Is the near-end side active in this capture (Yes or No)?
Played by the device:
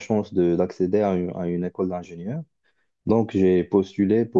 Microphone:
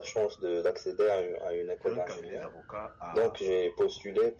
Yes